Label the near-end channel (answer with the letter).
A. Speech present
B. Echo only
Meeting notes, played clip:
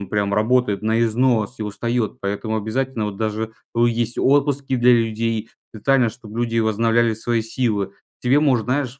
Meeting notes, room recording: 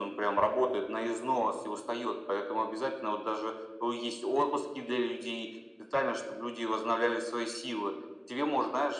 B